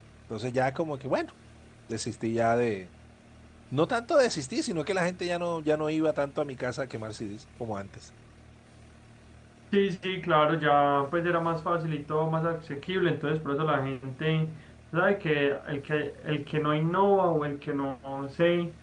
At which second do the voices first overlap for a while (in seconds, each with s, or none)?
none